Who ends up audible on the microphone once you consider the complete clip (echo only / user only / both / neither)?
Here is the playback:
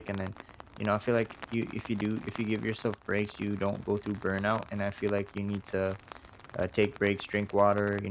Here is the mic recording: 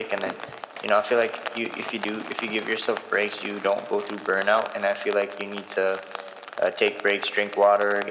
echo only